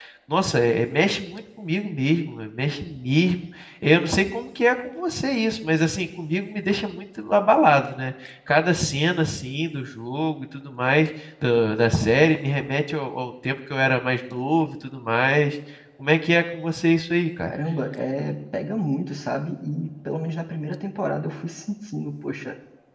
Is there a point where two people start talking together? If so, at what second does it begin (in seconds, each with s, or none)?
none